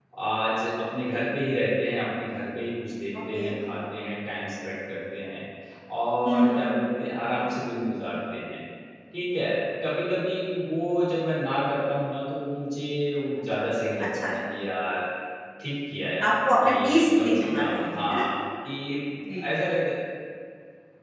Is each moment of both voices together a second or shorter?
No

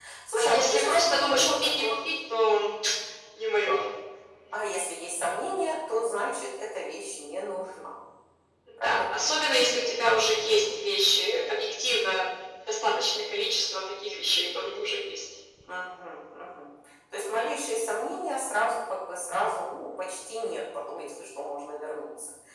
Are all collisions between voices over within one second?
No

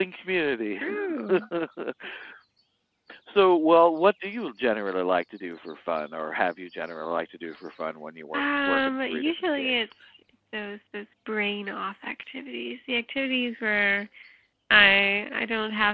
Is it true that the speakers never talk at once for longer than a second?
No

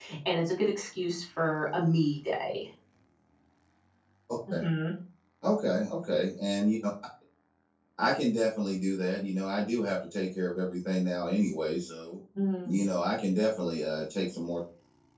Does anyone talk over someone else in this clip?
No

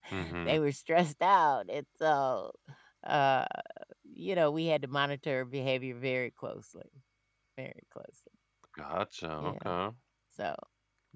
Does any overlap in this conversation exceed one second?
No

